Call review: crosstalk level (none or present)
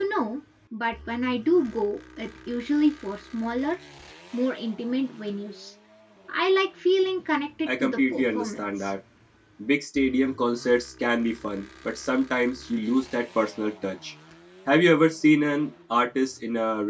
present